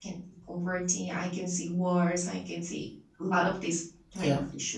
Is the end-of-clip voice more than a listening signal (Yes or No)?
No